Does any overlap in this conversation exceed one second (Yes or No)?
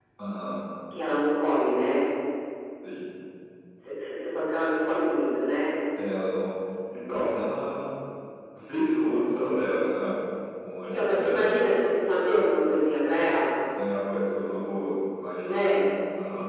No